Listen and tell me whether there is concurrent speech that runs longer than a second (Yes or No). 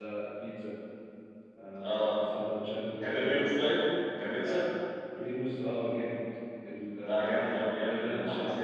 Yes